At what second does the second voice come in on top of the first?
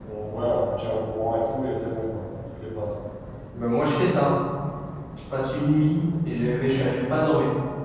none

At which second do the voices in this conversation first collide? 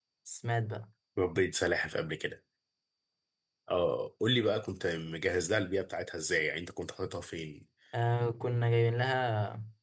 none

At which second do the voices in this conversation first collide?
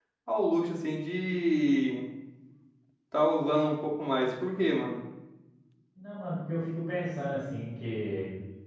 none

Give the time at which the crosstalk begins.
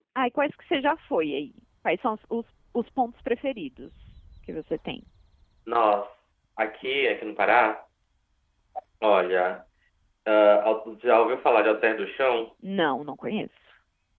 none

